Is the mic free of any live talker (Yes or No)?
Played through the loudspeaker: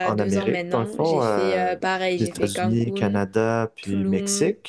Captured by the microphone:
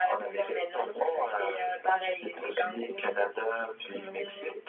Yes